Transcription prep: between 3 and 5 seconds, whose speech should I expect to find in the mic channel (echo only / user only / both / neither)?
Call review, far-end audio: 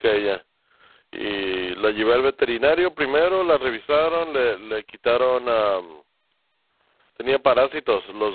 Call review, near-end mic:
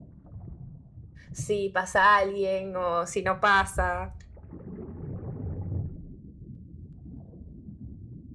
user only